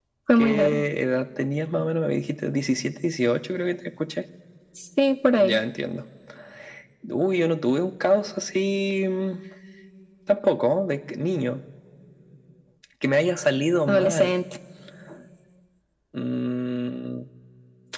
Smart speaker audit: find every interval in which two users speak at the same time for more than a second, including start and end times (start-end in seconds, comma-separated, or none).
none